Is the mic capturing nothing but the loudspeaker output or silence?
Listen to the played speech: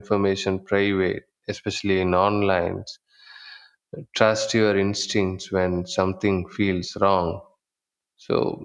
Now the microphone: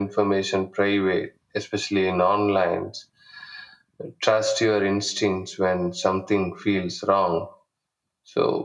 Yes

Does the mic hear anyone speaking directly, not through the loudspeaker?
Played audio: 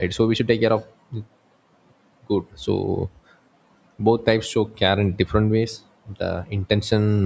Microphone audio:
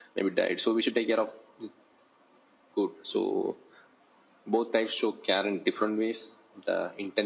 No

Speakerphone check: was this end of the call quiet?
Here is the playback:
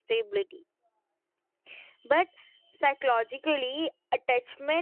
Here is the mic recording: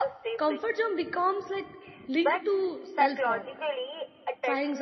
No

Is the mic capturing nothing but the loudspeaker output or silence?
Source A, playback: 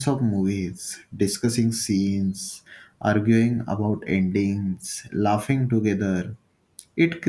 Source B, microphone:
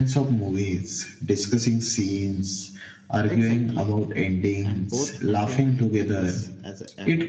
No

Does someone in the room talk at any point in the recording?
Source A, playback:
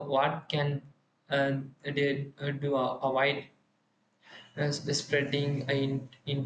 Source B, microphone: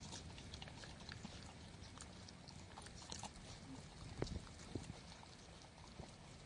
No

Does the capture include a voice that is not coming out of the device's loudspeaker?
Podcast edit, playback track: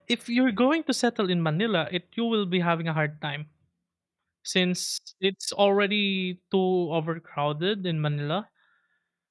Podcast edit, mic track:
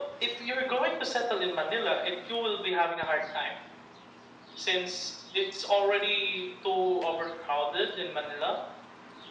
No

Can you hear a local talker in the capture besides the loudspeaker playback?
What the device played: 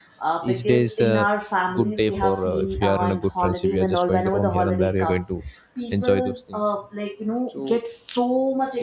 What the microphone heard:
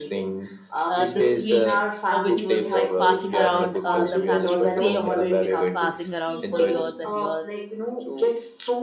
Yes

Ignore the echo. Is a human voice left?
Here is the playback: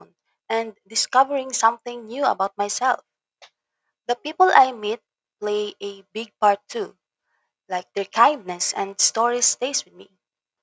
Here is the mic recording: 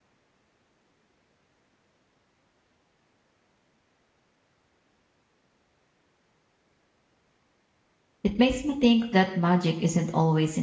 Yes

